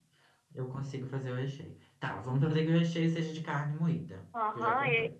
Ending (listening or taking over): taking over